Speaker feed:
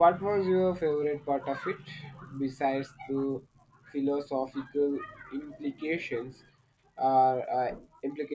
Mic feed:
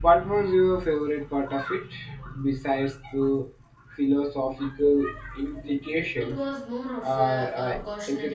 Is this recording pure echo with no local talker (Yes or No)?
No